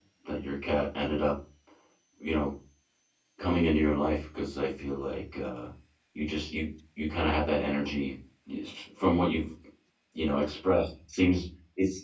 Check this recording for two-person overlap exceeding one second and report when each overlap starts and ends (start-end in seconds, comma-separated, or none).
none